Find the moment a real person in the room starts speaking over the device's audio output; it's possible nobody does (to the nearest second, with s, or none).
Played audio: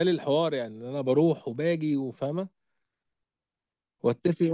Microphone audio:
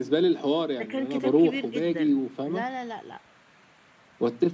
1 s